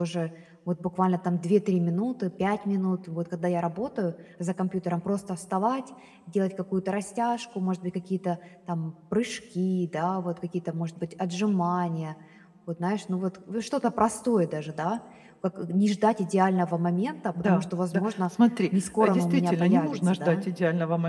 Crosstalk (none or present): present